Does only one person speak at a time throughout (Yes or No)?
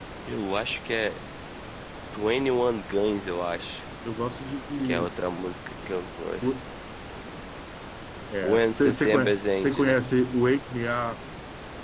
No